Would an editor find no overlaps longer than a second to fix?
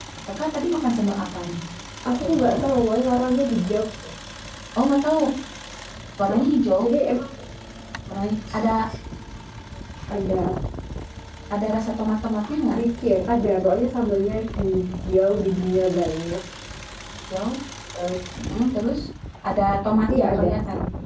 Yes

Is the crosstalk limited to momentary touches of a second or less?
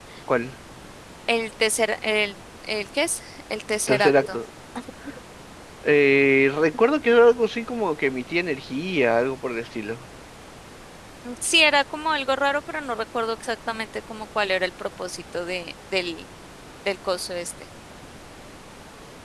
Yes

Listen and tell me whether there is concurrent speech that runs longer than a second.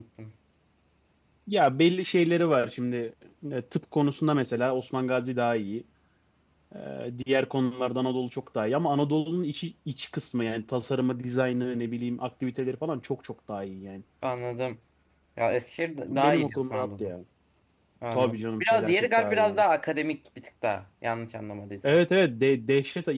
Yes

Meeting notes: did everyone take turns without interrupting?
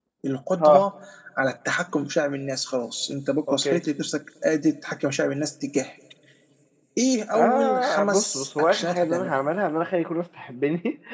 No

